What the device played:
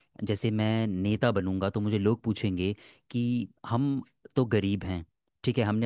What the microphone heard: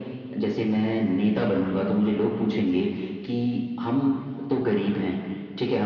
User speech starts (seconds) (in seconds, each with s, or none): none